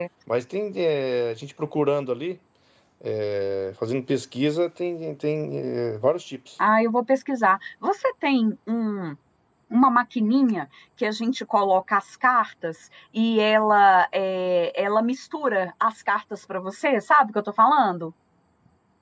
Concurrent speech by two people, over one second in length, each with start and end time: none

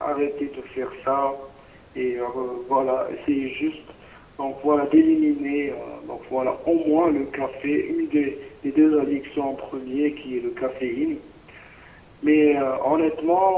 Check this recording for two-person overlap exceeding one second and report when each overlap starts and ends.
none

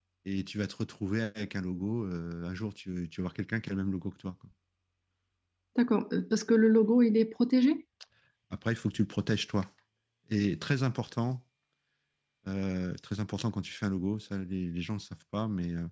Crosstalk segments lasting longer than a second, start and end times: none

